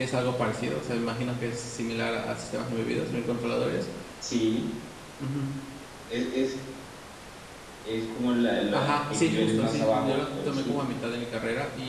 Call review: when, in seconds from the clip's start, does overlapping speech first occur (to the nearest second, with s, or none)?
9 s